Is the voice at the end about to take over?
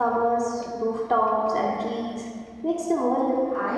Yes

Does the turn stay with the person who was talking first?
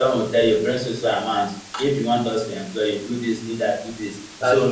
Yes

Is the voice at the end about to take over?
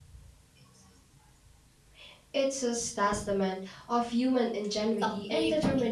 Yes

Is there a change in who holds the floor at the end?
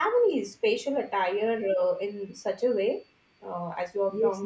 Yes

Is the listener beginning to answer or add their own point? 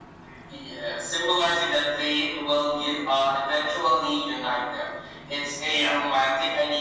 No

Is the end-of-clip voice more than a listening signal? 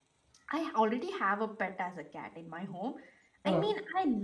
No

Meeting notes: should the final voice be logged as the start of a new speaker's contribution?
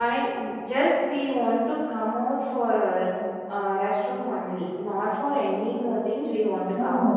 Yes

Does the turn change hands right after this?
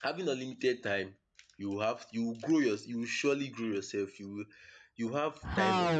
Yes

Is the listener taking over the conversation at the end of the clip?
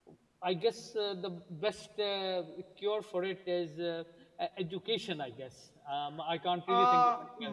Yes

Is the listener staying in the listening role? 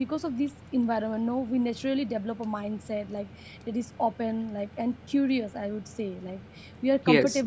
Yes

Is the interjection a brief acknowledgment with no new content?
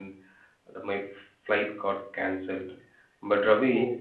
Yes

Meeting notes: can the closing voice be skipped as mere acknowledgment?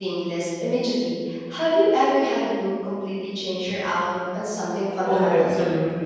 No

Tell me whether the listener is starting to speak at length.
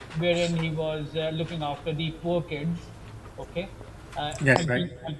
No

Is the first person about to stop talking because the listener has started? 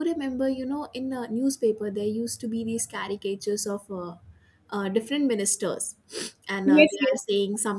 No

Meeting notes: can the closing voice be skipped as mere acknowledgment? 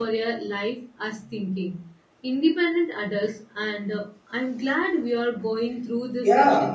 No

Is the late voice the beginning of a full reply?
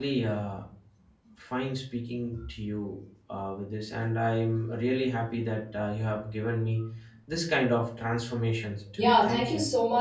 Yes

